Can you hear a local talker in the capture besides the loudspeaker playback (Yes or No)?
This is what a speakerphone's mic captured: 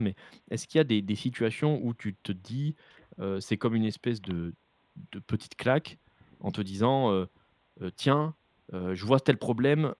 Yes